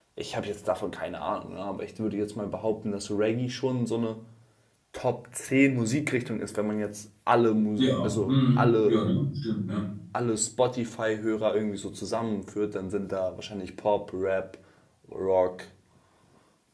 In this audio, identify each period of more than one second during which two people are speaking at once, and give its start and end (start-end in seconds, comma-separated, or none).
7.8-9.0